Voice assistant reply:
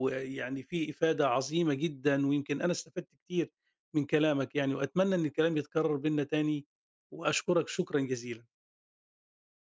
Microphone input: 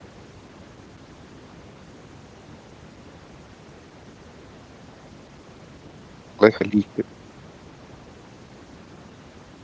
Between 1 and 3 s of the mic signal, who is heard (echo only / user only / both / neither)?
neither